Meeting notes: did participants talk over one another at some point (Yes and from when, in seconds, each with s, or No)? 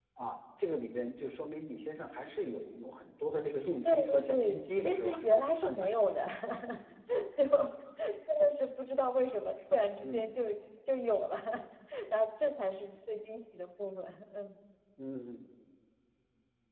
Yes, from 3.8 s